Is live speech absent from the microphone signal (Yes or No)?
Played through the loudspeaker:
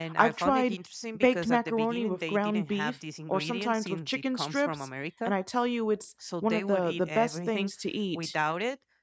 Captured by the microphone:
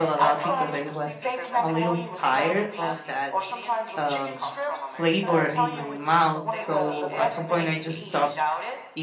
No